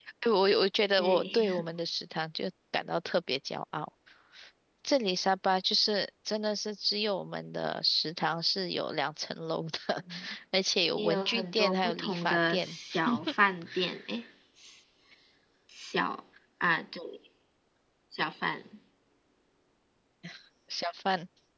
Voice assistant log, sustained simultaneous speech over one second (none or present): present